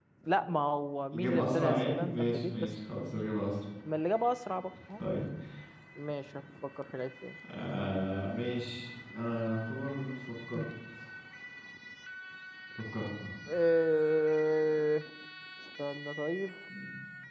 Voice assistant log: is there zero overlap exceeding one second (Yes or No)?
No